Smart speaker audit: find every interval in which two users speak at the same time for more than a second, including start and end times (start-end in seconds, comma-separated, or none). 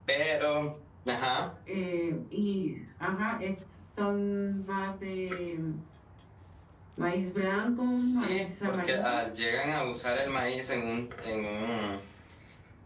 8.0-9.2